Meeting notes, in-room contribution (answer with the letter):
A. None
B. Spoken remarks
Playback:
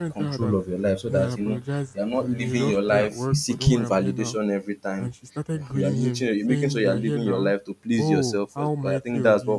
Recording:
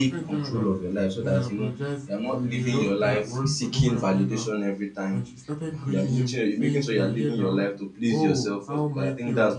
A